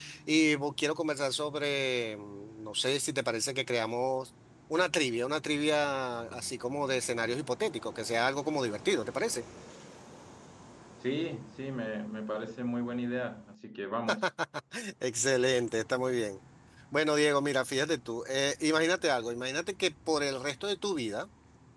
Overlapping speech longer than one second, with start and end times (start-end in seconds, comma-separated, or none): none